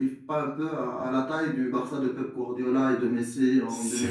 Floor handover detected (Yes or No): Yes